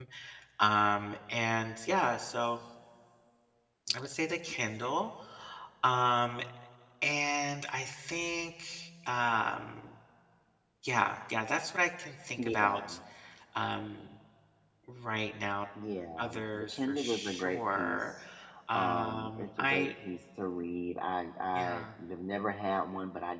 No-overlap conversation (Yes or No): No